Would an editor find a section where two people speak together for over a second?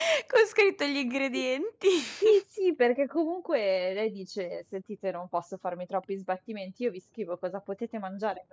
No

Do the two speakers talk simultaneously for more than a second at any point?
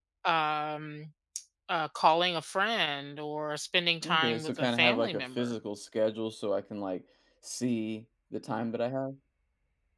Yes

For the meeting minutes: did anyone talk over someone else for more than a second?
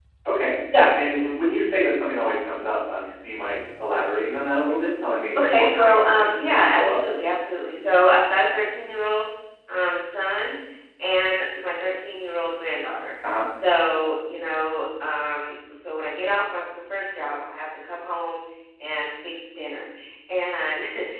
Yes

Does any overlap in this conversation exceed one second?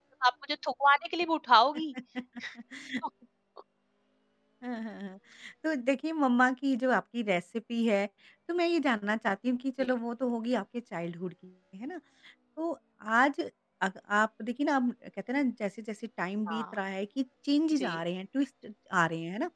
No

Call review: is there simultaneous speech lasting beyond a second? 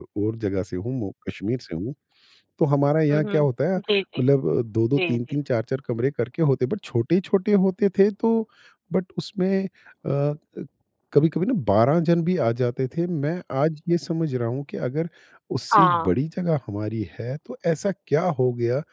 No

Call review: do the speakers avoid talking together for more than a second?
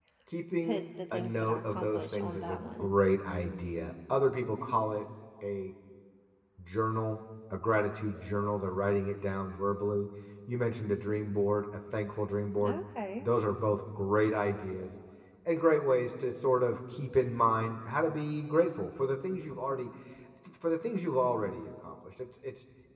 No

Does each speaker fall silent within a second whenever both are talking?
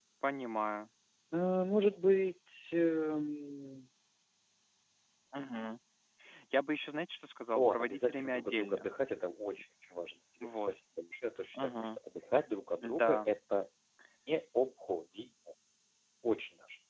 No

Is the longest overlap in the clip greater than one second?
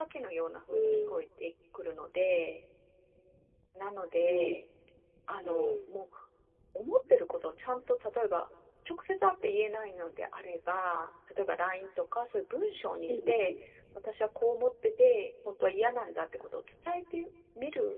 No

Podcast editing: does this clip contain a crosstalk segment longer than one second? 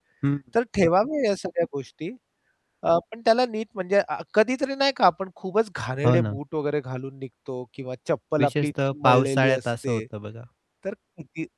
Yes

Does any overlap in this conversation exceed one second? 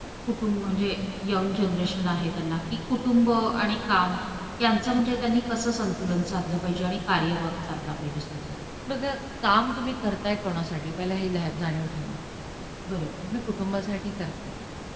No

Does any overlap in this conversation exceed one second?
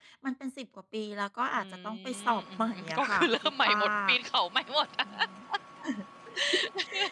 Yes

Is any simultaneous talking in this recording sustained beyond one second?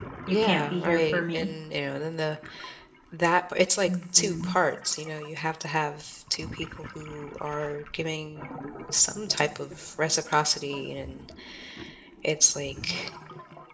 Yes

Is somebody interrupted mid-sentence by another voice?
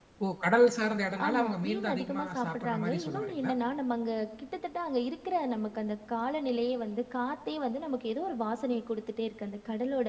Yes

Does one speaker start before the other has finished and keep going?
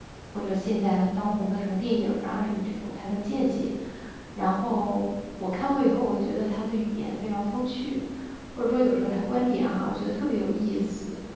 No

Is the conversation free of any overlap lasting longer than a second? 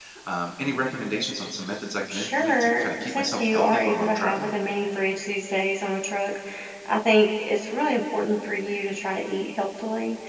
No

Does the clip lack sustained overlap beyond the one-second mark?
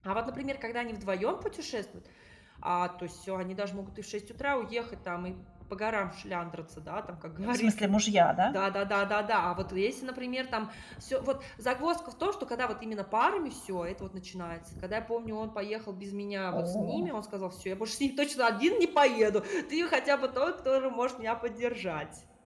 Yes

